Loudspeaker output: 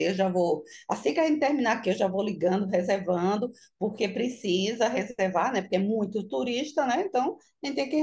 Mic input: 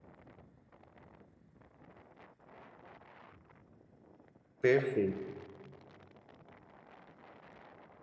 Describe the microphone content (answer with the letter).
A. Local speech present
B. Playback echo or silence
A